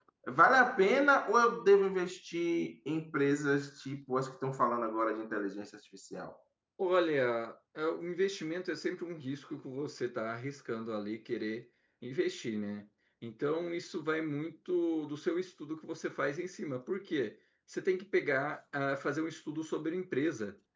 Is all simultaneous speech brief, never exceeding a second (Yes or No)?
Yes